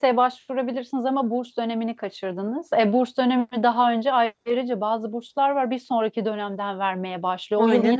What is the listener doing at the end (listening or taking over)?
listening